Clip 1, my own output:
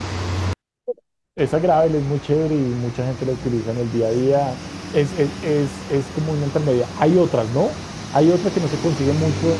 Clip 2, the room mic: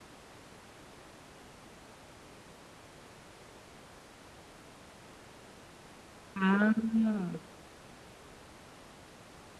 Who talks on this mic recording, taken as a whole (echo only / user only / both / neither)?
user only